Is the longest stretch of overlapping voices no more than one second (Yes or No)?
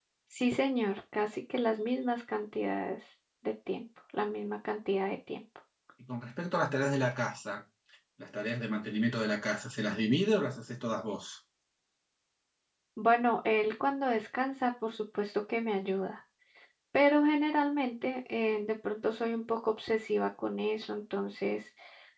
Yes